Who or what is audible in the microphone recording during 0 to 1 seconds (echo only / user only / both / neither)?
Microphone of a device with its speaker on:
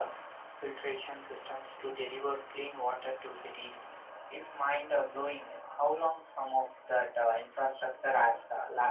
echo only